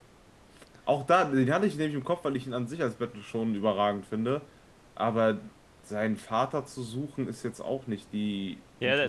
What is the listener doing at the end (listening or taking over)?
taking over